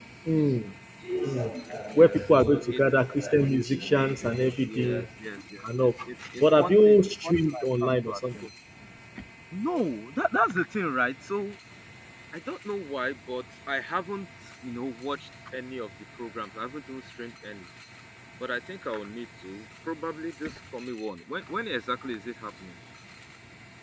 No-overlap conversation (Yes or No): No